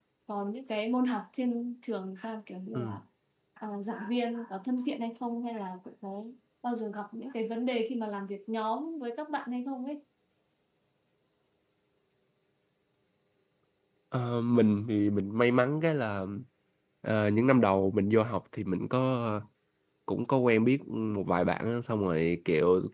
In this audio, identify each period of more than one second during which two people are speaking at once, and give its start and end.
none

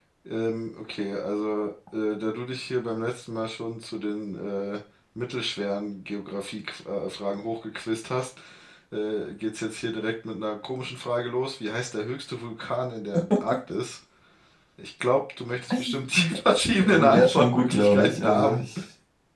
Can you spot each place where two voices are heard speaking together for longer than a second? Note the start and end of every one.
16.8-18.6

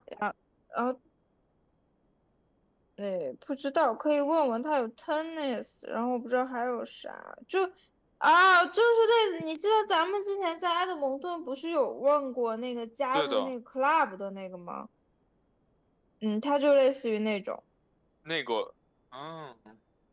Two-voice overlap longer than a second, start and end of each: none

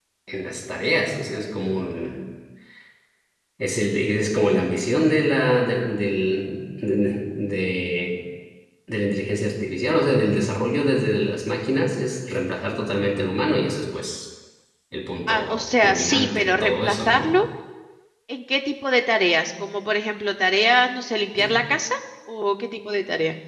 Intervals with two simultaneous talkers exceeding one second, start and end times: 15.3-17.3

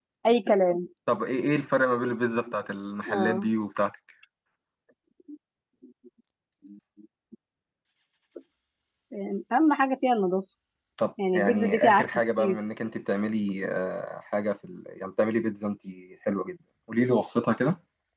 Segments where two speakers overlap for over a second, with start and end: 11.3-12.6

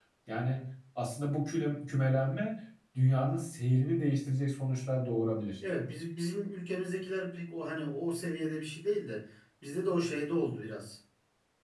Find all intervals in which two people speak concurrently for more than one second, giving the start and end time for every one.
none

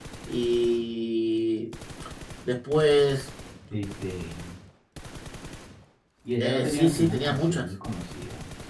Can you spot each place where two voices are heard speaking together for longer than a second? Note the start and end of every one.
6.4-7.7

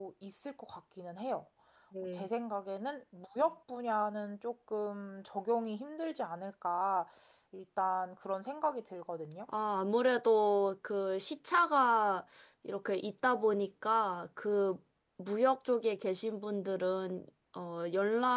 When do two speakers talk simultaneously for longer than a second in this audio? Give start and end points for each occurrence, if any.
none

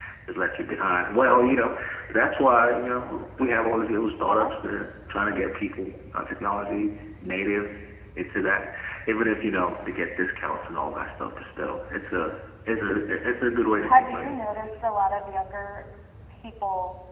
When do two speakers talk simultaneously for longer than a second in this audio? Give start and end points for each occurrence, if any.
none

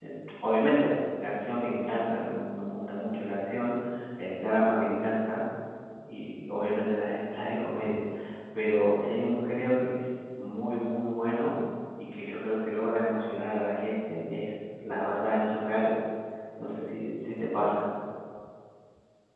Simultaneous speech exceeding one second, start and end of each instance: none

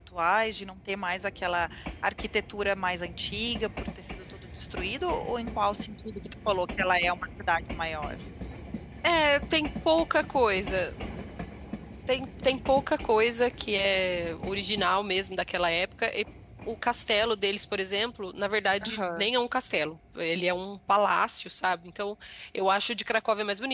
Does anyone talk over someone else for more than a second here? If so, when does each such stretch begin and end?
none

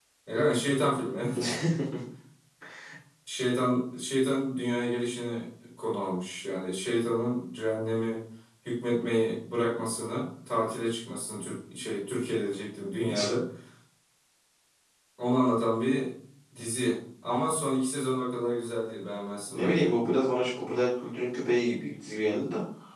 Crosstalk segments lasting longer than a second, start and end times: none

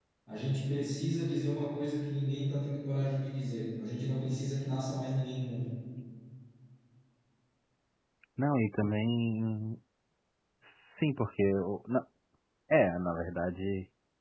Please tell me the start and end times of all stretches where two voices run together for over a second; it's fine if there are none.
none

